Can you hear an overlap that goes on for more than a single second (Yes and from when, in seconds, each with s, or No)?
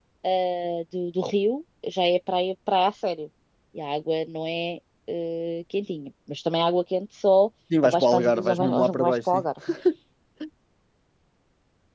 Yes, from 7.7 s